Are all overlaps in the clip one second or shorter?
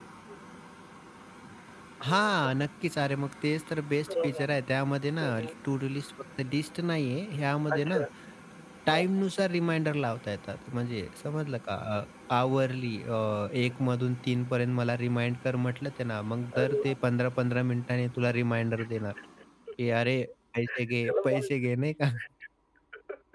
Yes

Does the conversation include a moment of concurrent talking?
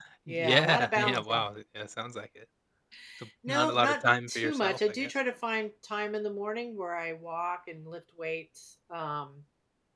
Yes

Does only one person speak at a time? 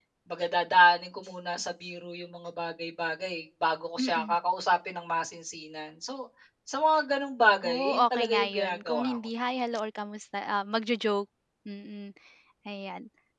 No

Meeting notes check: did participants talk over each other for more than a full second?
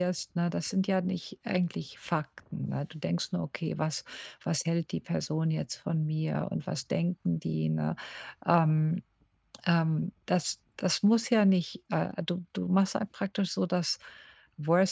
No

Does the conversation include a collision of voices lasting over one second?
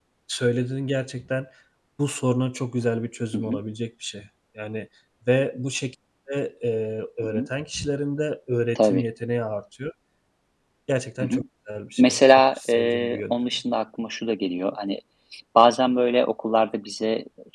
Yes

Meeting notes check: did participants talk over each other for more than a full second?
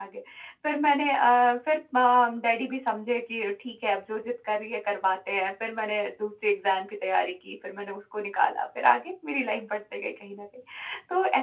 No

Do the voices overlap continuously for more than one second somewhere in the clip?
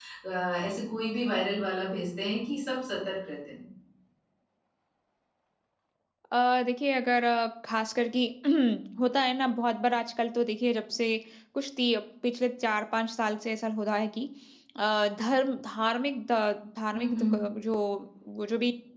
No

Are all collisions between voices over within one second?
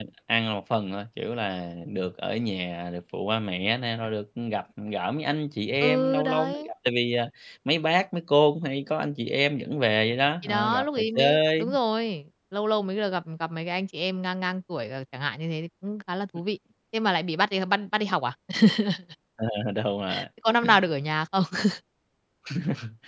No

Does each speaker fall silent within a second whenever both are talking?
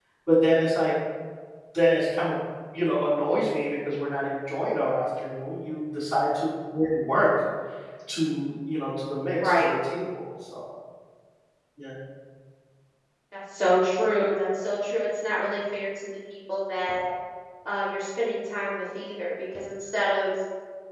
Yes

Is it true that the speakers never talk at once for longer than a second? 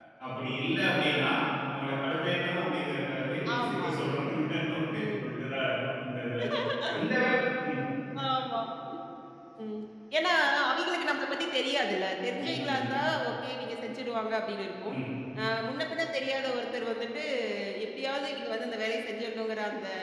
Yes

